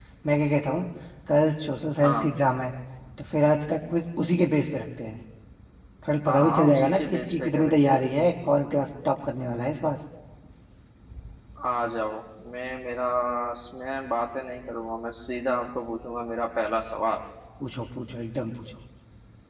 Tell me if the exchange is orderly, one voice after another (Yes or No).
No